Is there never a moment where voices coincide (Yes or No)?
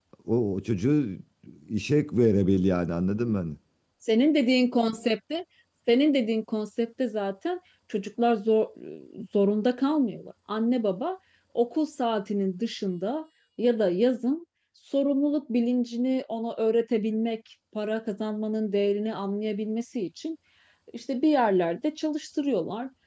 Yes